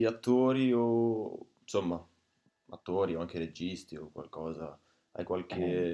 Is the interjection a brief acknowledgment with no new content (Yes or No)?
Yes